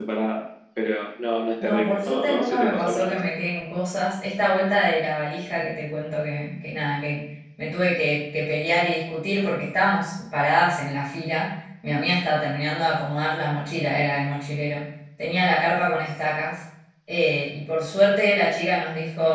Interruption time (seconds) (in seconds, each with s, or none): 1.6 s